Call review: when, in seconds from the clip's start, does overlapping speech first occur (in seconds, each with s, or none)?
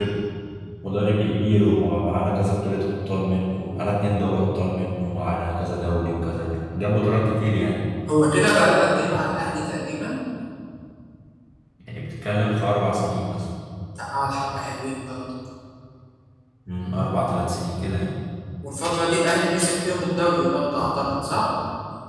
none